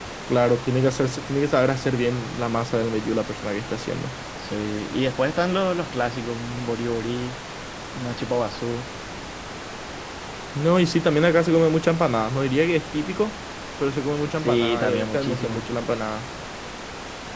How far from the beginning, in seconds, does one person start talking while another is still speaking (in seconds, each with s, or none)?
14.4 s